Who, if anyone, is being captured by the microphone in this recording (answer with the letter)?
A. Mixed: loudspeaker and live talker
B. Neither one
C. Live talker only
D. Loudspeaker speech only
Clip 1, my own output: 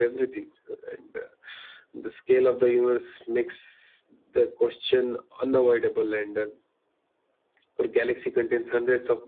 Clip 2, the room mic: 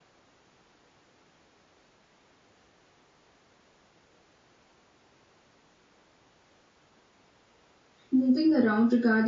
C